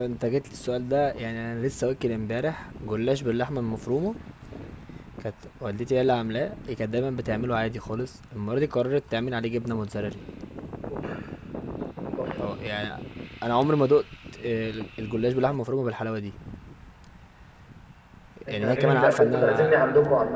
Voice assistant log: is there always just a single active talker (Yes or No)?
No